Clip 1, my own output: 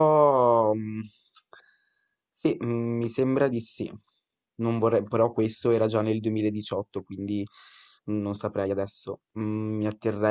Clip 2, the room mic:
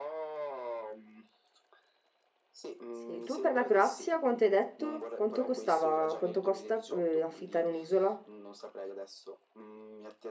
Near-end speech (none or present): present